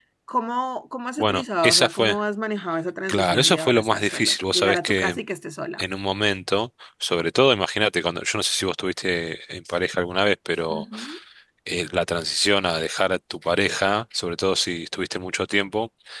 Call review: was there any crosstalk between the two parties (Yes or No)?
Yes